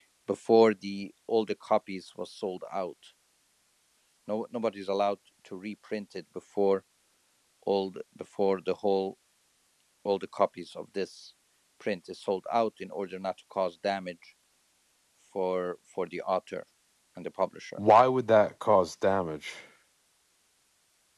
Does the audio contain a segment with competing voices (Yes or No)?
No